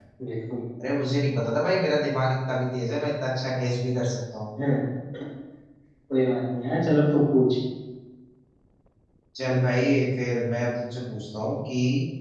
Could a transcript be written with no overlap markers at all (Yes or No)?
Yes